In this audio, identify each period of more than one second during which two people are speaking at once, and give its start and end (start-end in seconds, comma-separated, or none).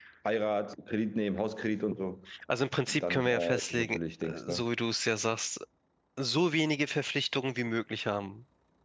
2.9-4.6